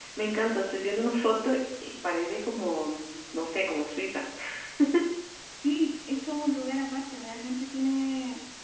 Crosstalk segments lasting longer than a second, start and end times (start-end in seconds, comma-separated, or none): none